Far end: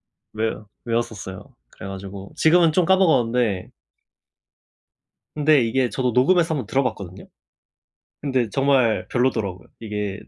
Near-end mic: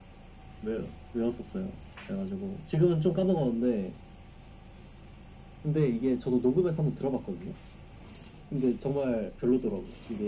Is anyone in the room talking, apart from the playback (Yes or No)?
No